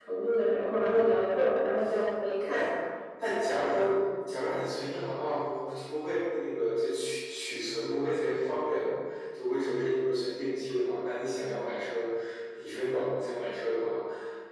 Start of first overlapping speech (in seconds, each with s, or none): none